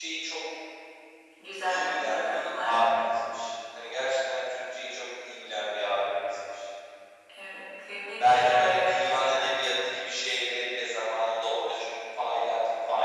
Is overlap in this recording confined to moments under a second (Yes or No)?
No